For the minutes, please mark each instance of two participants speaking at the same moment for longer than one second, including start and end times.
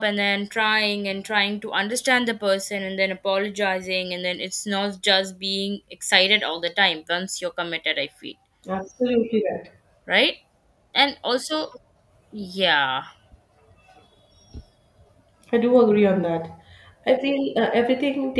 none

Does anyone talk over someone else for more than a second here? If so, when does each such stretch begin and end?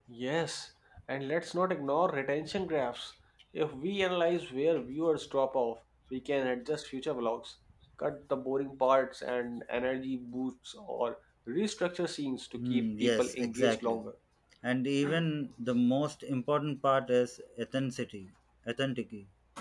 12.6-14.0

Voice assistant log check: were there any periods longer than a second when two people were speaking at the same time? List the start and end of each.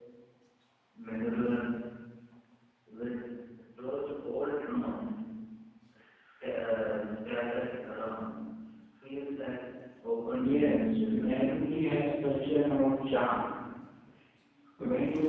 10.4-11.6

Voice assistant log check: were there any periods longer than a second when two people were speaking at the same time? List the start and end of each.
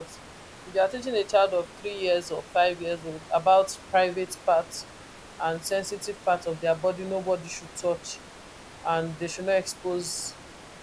none

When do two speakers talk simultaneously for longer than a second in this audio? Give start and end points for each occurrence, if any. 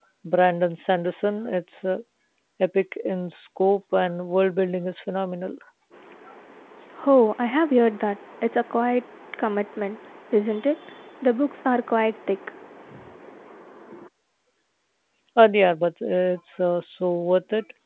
none

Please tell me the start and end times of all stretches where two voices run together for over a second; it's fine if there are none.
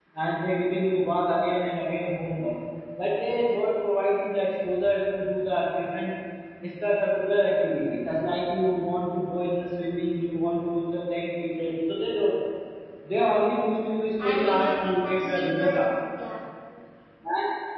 14.2-15.8

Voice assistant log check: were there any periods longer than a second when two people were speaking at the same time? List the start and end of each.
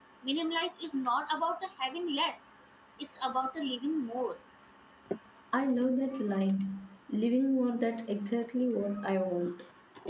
none

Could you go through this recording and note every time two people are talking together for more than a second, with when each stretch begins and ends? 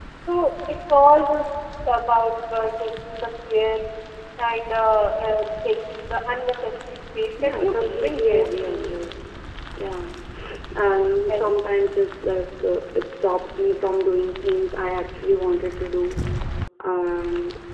7.4-8.9

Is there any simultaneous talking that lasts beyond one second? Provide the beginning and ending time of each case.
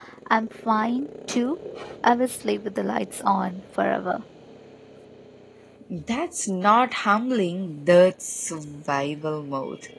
none

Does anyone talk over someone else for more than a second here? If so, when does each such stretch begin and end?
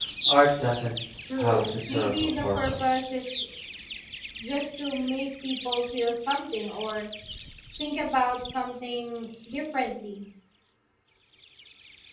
1.4-3.0

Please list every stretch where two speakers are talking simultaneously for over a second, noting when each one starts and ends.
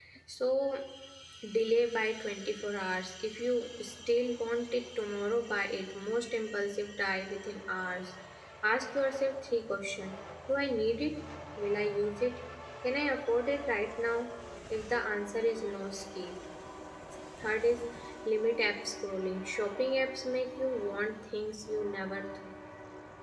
none

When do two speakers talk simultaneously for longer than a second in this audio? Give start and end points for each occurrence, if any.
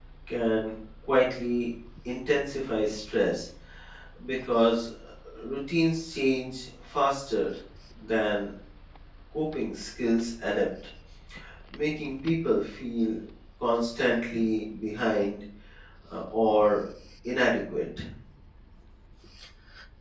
none

